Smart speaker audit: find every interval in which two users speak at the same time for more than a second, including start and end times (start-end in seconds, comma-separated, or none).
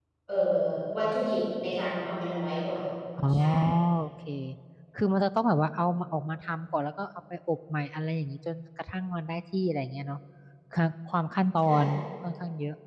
none